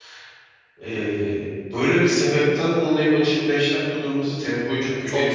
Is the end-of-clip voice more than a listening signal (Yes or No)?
Yes